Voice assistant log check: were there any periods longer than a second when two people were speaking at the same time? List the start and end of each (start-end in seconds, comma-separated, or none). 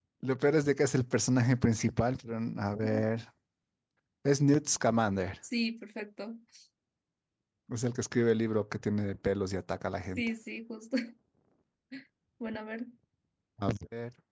none